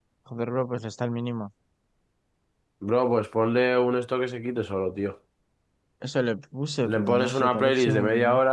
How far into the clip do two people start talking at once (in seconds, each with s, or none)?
6.8 s